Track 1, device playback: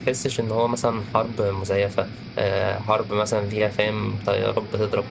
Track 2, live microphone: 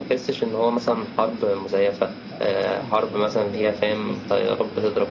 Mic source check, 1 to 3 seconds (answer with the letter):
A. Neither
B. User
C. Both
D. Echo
C